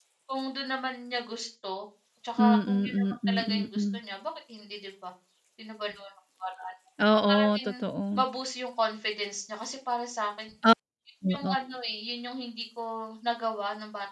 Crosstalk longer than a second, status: present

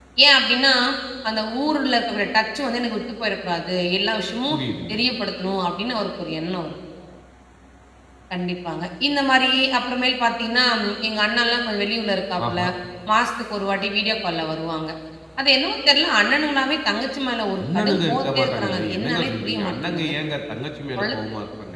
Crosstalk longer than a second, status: present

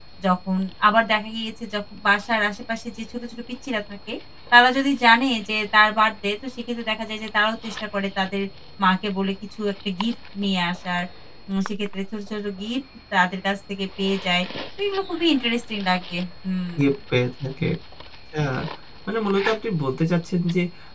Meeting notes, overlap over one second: none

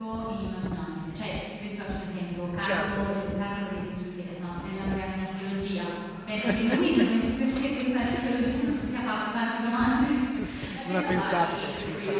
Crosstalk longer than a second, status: present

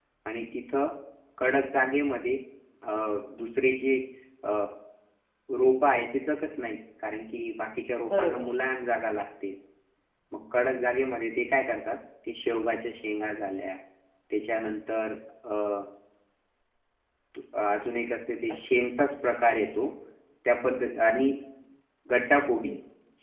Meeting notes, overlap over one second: none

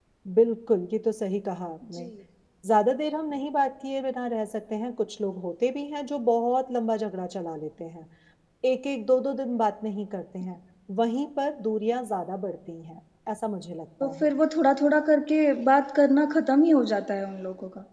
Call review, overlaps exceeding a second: none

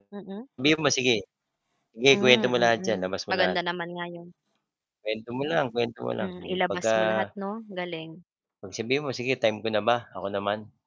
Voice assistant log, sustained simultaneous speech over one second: present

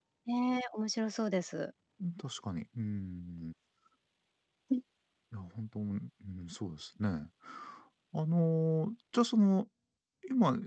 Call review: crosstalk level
none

